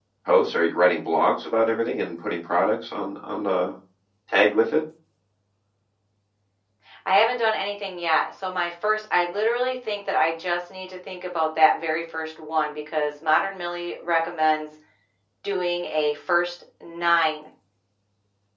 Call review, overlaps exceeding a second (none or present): none